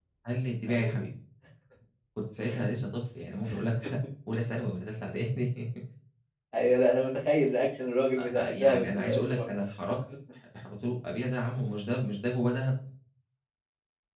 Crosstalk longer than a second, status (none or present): present